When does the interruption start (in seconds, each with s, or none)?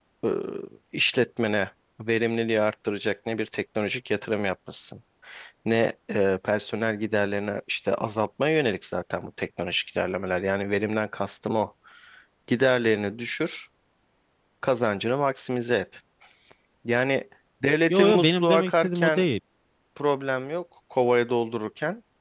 17.9 s